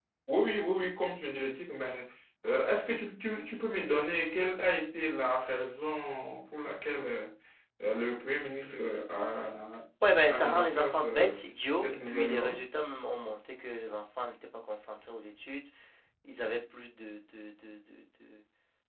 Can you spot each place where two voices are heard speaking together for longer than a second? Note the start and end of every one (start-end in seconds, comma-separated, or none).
10.2-12.6